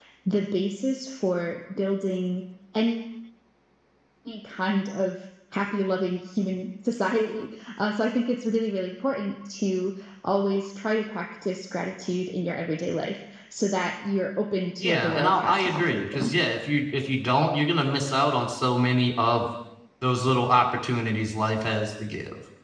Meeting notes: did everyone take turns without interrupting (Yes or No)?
No